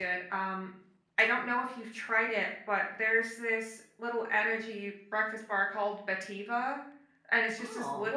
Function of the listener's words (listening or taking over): listening